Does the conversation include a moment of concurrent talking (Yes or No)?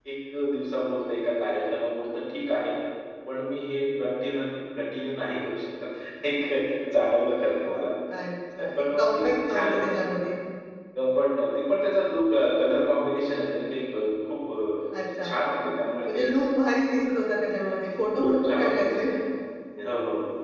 Yes